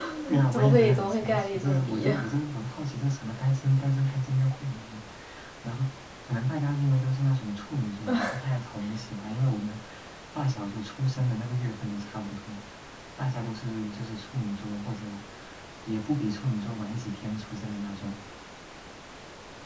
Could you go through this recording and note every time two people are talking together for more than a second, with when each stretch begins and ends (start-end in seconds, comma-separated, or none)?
0.5-2.2